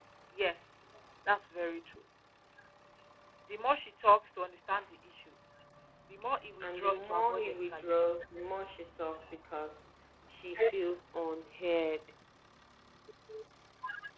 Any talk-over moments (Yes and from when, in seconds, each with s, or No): Yes, from 6.6 s